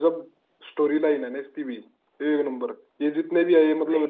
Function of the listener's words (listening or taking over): listening